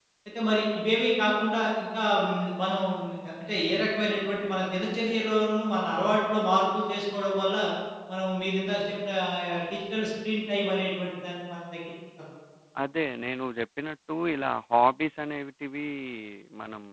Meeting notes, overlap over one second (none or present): none